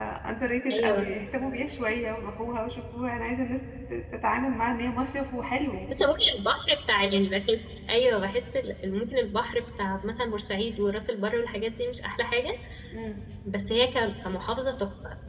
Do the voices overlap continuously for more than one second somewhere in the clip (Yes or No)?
No